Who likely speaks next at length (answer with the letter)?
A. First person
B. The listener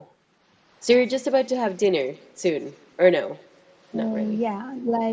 B